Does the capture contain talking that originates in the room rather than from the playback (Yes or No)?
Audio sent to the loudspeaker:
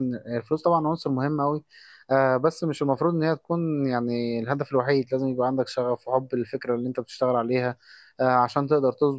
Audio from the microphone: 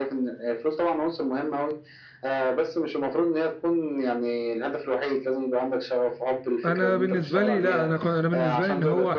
Yes